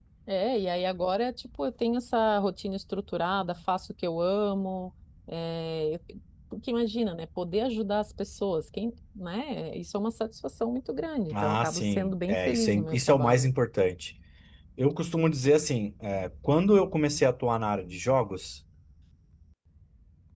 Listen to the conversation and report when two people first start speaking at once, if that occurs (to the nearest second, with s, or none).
11 s